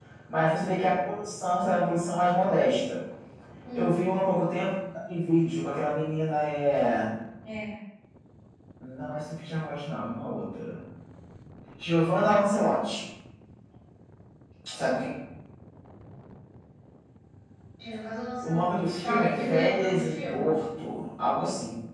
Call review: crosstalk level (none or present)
present